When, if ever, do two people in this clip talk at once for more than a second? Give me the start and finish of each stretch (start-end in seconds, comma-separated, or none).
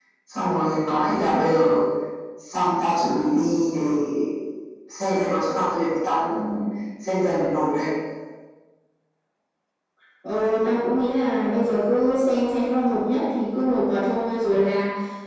none